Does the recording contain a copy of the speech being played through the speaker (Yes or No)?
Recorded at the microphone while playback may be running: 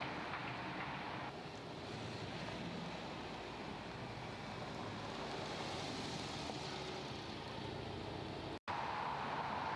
No